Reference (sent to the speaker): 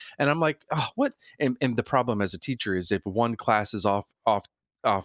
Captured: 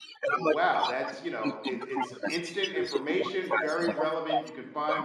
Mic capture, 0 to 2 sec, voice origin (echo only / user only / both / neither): both